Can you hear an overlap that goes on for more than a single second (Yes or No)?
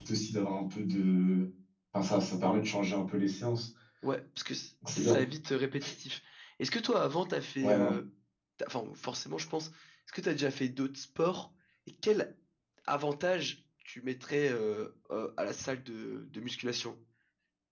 No